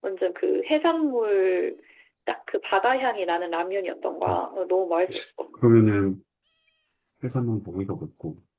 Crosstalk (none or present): none